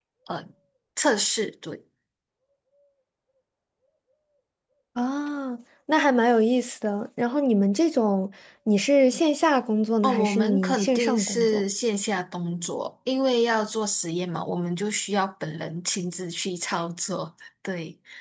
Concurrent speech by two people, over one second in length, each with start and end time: 10.0-11.6

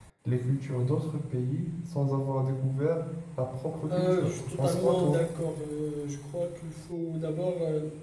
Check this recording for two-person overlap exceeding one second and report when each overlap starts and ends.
3.9-5.2

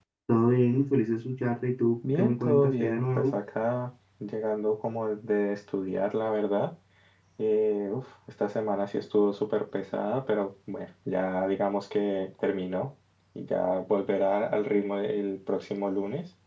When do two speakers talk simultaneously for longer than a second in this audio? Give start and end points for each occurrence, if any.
2.1-3.4

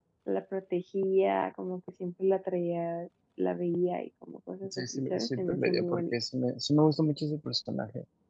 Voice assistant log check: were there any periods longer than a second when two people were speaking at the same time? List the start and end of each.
4.8-6.2

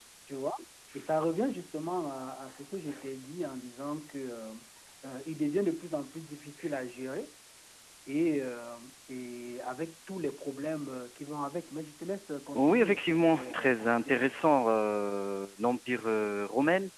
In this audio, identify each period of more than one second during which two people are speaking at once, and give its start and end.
12.6-14.4

